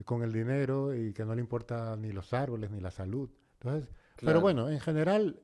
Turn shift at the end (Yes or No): No